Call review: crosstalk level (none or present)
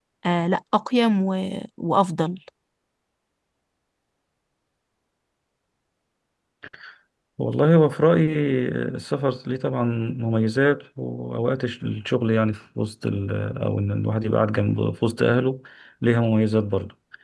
none